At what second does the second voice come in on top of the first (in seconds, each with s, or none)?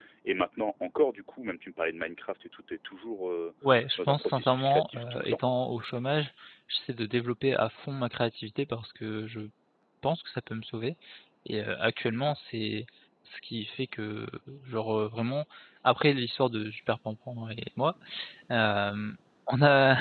4.0 s